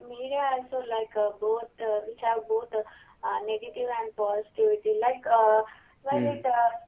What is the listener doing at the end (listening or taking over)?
listening